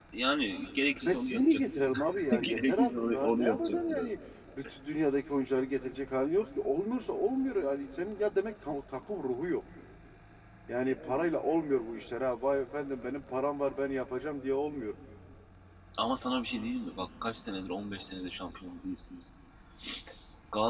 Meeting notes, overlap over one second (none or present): present